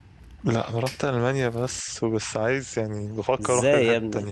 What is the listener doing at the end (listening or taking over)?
taking over